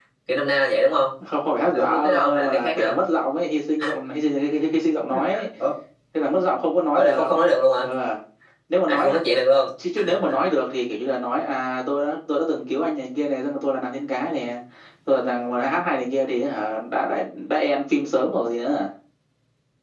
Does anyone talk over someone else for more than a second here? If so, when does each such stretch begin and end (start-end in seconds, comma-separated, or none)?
1.7-3.0